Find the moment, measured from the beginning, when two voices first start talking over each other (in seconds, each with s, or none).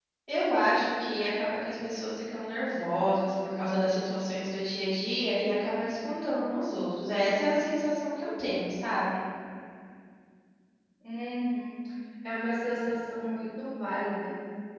none